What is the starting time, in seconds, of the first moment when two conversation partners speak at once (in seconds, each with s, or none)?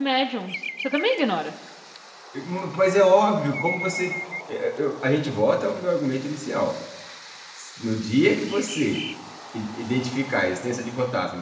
none